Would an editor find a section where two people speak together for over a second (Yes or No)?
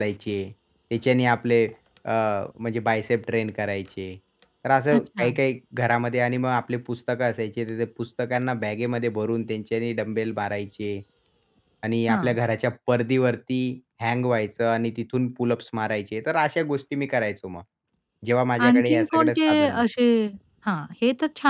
Yes